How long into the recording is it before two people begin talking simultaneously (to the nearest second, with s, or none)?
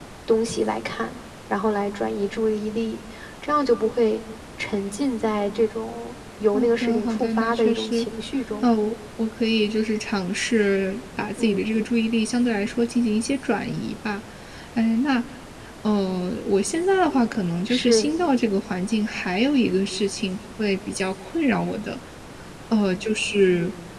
7 s